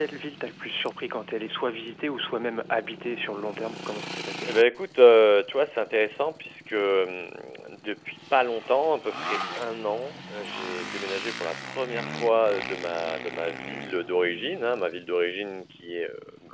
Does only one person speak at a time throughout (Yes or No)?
Yes